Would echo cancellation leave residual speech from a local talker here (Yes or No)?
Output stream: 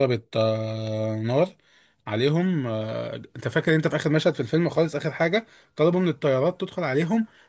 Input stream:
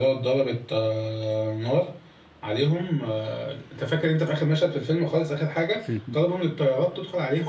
Yes